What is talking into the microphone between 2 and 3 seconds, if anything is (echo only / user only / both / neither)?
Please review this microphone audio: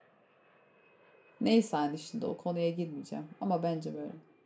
user only